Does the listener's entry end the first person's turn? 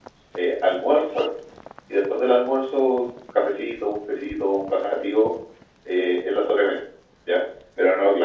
No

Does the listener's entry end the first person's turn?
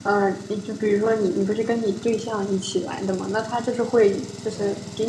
No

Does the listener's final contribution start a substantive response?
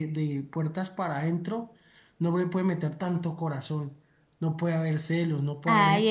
Yes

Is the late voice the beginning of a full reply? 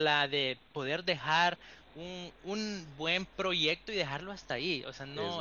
No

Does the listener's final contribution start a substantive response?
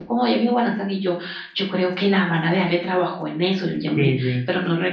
No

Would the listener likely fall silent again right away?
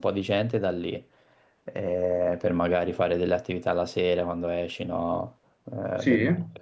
Yes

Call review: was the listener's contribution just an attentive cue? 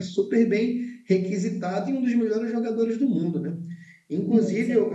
Yes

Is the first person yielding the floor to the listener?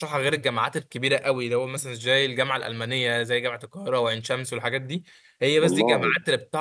No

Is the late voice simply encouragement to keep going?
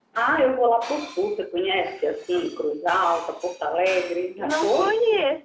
No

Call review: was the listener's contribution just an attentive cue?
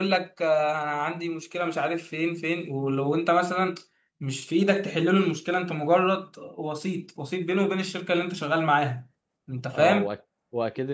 No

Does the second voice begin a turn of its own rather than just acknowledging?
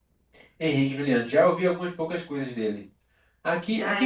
No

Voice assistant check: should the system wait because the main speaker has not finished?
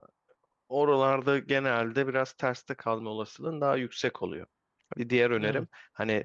Yes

